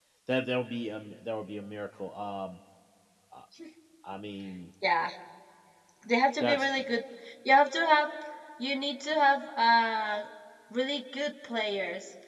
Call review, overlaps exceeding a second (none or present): none